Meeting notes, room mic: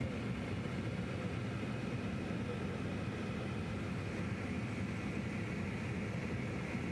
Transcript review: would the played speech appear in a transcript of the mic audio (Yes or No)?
No